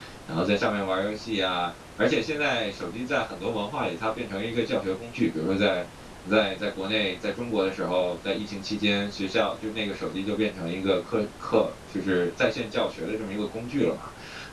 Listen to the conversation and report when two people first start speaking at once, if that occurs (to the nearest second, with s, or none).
none